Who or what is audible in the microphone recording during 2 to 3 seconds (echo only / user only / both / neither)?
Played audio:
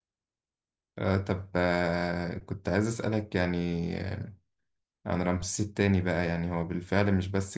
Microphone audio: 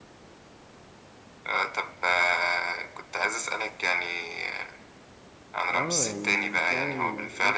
echo only